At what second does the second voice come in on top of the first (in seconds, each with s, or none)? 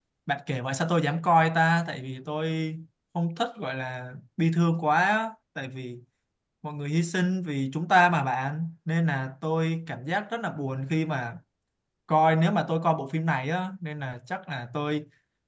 none